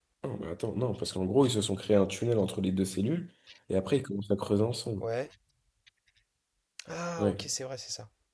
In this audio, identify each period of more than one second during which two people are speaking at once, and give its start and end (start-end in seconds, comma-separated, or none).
none